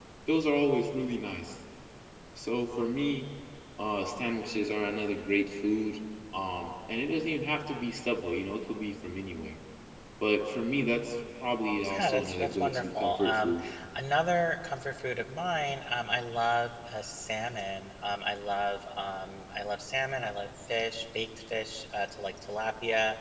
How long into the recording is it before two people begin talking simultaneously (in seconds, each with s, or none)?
11.8 s